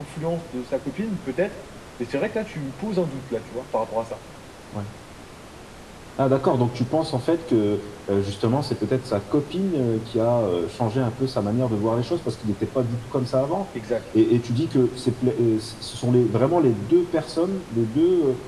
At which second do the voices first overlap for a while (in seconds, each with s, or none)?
none